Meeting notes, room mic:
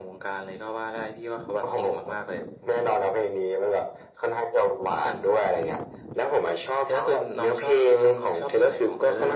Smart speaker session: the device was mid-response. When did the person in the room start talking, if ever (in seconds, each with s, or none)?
none